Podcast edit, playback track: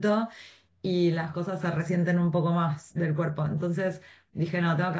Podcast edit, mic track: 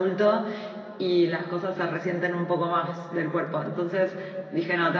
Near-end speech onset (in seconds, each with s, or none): none